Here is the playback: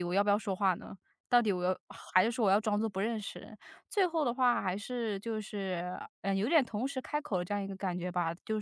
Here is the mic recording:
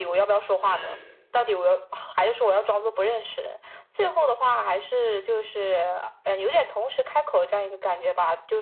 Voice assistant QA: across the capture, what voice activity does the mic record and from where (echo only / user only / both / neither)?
both